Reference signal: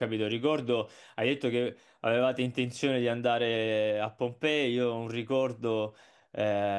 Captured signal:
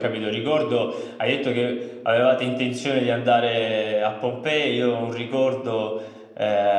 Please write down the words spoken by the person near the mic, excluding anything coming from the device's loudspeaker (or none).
none